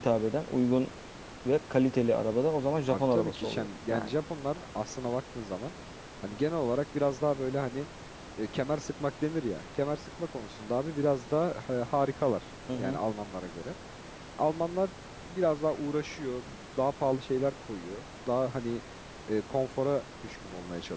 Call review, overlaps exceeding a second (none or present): present